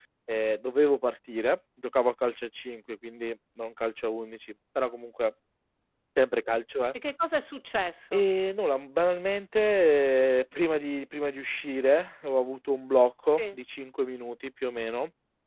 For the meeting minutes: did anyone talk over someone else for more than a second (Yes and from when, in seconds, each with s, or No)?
No